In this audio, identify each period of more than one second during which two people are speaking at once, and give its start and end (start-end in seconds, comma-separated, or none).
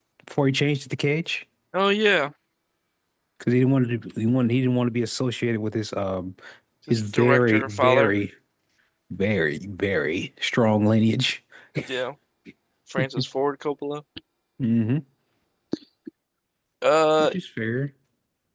6.9-8.1